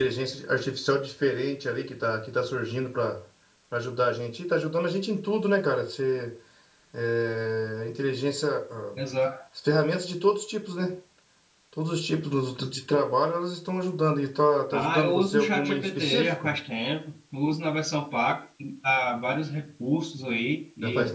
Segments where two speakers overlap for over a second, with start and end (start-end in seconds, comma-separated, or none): 14.7-16.5